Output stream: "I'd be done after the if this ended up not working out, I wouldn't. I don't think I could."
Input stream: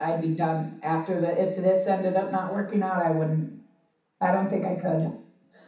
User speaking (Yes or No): No